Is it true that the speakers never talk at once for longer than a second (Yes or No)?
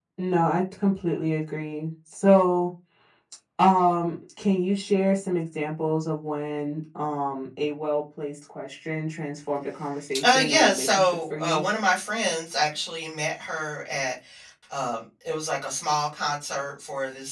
No